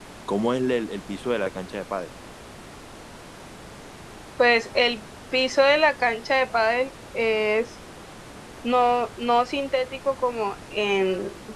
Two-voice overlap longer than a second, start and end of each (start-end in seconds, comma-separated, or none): none